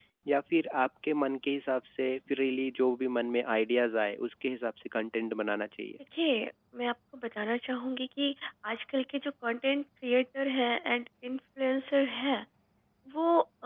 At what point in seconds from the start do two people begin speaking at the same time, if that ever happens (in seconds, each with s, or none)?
none